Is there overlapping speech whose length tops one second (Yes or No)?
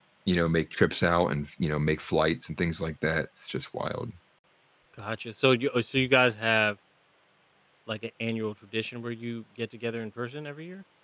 No